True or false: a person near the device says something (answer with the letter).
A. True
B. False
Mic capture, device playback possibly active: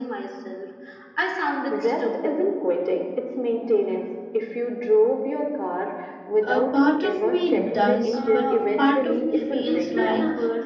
A